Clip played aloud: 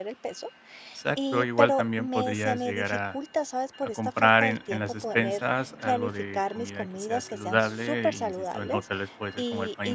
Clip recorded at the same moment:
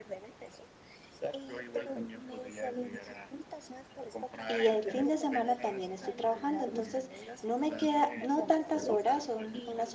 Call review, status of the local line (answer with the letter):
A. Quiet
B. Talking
B